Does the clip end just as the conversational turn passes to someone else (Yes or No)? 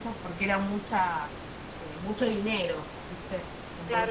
Yes